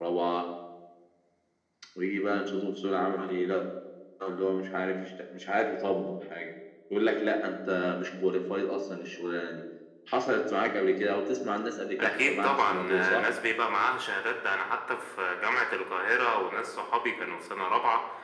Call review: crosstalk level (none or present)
present